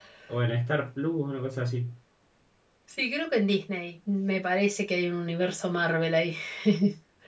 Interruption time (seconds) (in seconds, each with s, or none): none